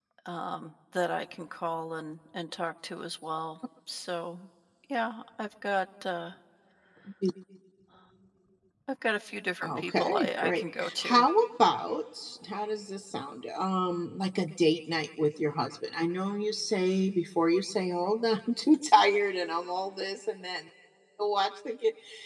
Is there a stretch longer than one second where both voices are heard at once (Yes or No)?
Yes